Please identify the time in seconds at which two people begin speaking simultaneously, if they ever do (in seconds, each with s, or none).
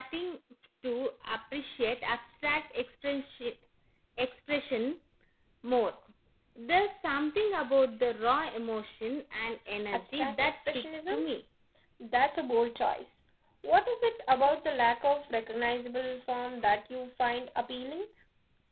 9.9 s